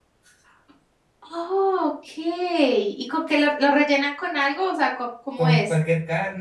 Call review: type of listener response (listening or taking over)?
taking over